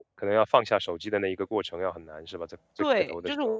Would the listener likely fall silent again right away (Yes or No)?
No